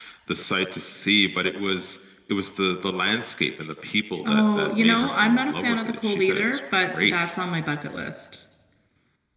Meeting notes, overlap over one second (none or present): present